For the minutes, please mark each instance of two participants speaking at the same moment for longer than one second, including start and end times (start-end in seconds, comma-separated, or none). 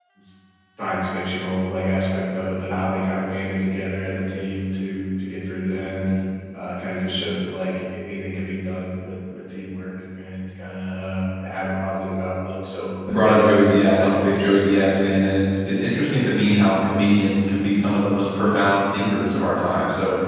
13.1-14.9